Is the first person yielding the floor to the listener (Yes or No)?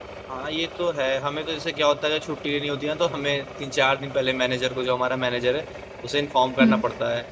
No